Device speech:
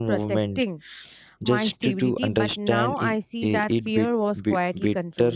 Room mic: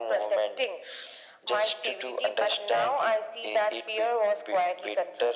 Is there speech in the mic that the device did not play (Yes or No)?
No